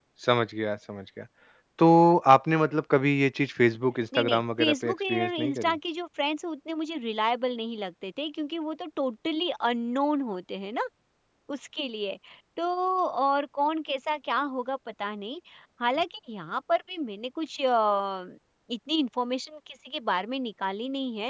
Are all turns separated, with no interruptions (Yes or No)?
No